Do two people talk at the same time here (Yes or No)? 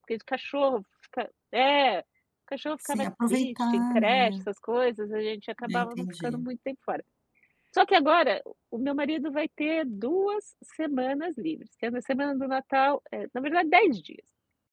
Yes